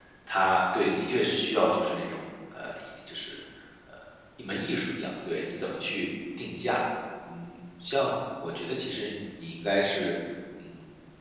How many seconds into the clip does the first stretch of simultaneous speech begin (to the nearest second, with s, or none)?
none